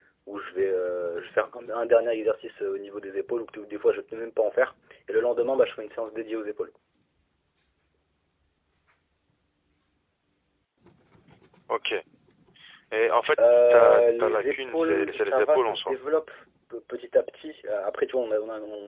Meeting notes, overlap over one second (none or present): present